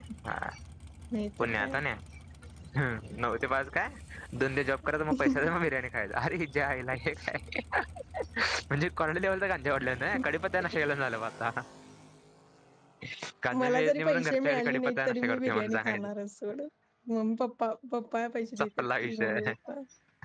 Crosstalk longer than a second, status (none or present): present